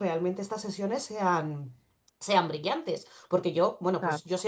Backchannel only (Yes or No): Yes